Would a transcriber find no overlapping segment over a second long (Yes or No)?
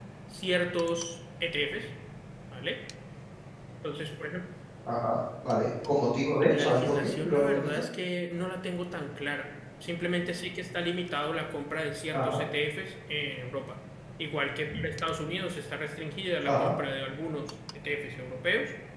No